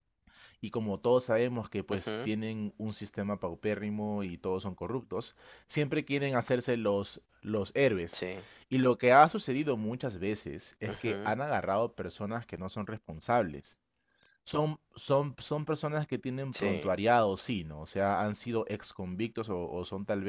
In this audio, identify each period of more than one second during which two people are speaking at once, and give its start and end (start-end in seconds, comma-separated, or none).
none